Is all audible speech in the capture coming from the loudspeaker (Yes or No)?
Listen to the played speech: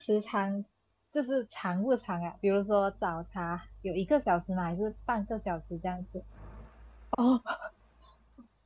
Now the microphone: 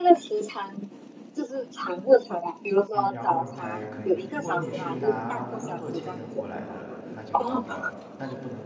No